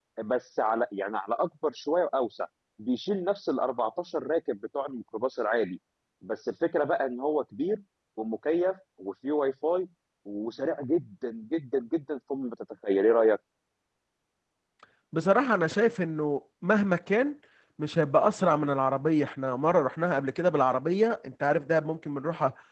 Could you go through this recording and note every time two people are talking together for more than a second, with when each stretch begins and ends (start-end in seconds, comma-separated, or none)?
none